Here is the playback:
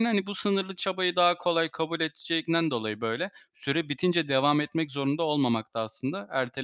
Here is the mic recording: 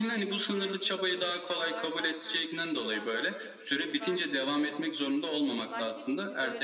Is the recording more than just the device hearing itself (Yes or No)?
Yes